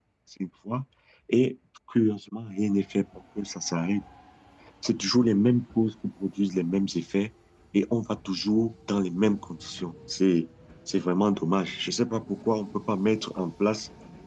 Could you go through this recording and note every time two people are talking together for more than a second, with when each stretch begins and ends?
none

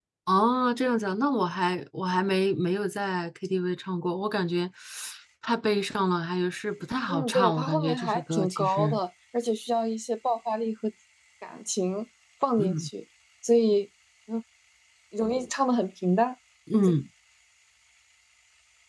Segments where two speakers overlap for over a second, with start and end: 7.1-9.0

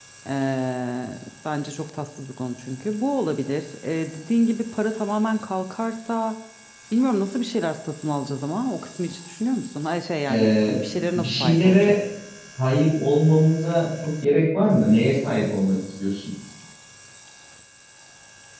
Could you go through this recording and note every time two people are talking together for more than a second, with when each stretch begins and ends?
10.3-12.0

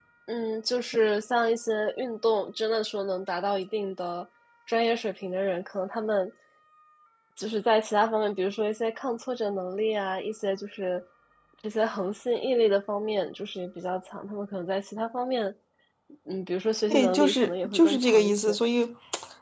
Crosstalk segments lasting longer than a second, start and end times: 16.9-18.6

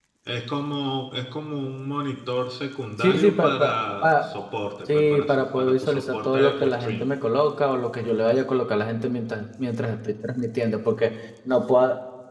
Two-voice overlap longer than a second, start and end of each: 3.0-4.3, 4.9-7.1

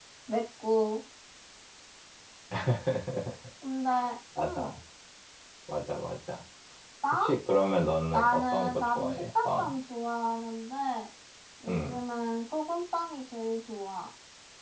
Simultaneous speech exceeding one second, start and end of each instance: 8.1-9.8

